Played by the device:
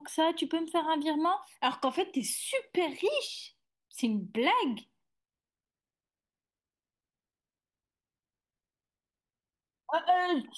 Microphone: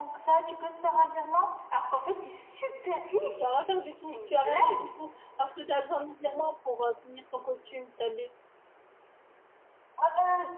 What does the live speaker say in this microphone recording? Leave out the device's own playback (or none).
Tu as rien à faire du tout, tu as rien à faire du tout, parce que tu as besoin de mes virements pour euh, finir ton costume, tu as,